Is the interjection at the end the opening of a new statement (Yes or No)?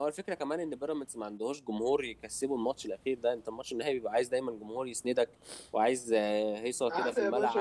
Yes